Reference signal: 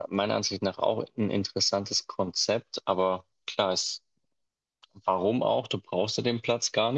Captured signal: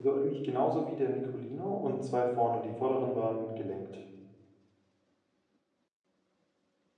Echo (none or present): none